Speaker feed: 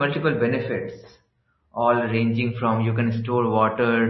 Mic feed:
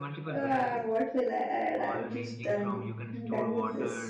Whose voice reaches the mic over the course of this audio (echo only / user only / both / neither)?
both